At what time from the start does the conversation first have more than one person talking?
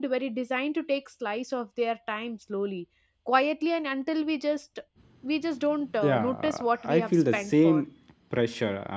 6.0 s

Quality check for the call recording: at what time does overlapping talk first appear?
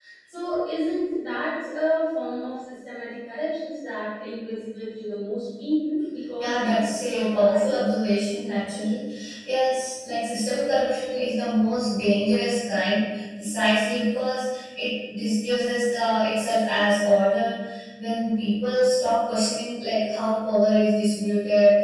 6.4 s

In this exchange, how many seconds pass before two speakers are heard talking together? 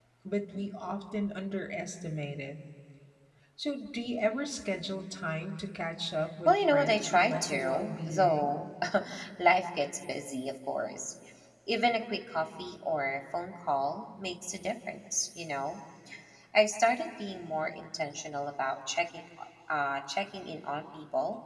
6.5 s

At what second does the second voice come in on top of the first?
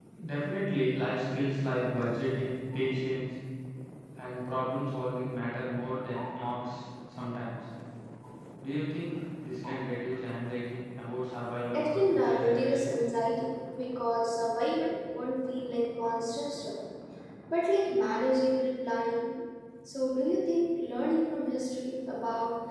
11.7 s

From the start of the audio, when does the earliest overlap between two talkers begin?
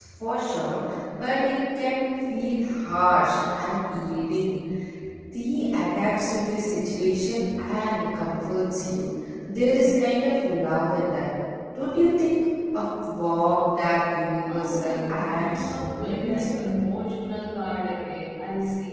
14.5 s

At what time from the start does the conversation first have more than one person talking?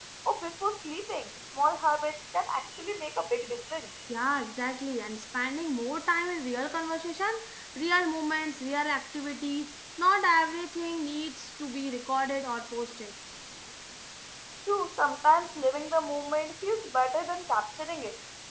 none

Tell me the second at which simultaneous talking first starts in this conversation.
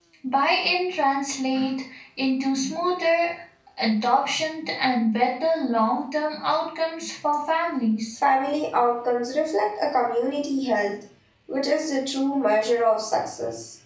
none

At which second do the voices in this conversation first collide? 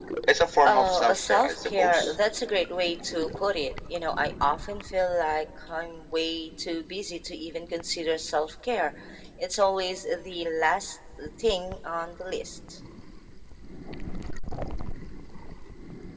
0.6 s

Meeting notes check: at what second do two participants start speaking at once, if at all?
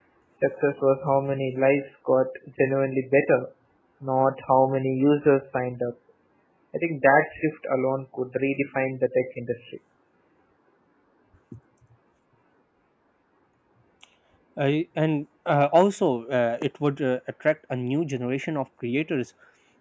none

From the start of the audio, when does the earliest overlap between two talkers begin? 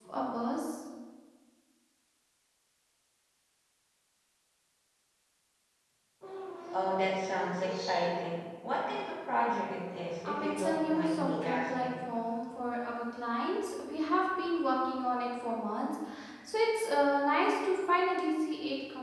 10.2 s

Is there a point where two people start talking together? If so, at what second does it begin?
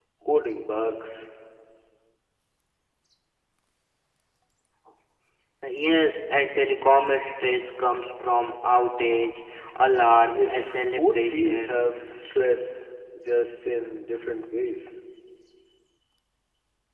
10.3 s

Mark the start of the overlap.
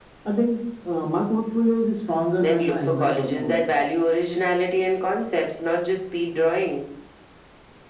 2.4 s

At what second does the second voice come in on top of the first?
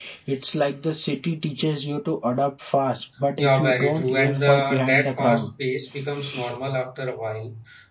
3.4 s

